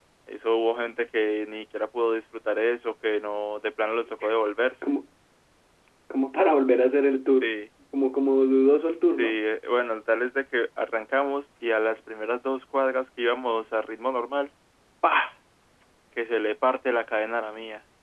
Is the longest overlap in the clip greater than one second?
No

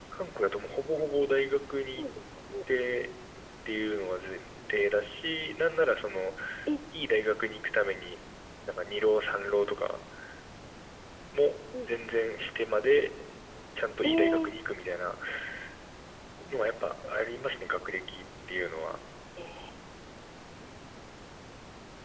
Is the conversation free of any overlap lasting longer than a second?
Yes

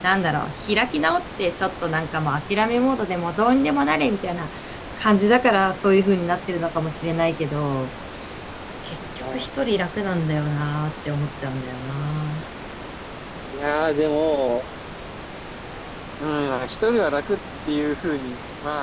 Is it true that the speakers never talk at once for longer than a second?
Yes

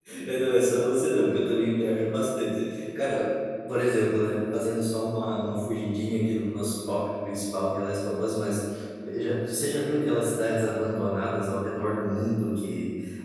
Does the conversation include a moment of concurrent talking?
No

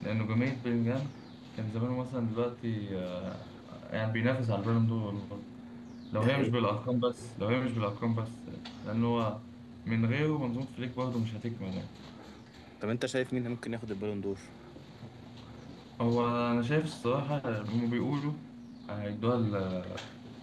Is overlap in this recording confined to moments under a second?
Yes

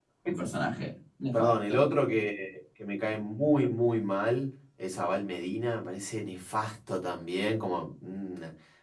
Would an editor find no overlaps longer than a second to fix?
Yes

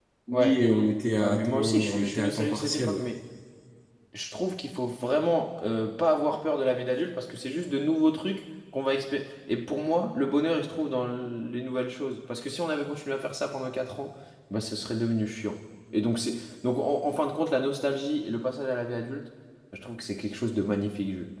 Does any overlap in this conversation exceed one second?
Yes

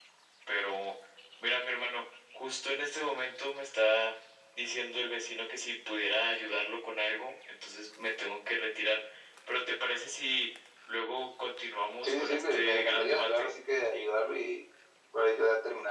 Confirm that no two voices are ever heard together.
No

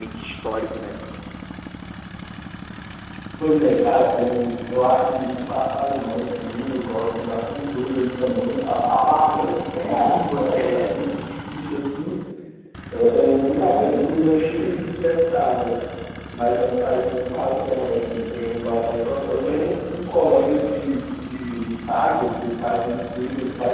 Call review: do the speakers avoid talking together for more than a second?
Yes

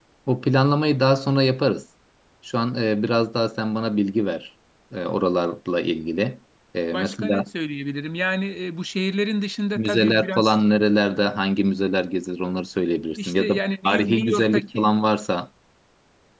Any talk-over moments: Yes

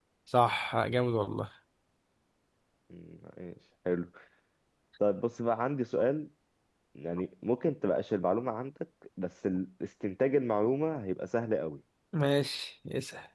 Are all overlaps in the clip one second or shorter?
Yes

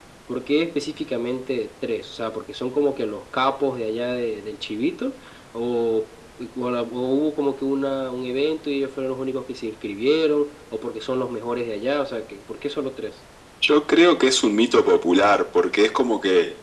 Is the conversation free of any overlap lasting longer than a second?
Yes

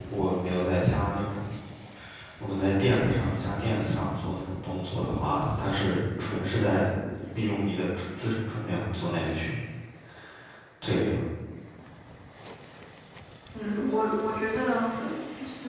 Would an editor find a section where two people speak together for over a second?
No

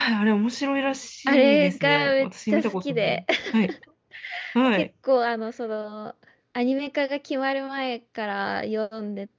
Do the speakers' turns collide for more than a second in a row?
Yes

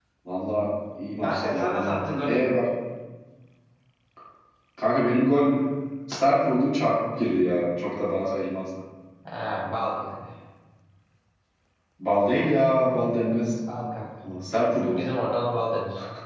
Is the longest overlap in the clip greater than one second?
Yes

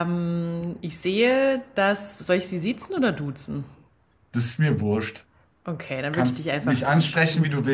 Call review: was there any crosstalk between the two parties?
Yes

